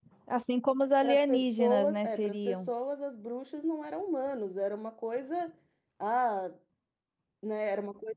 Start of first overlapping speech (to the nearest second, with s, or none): 1 s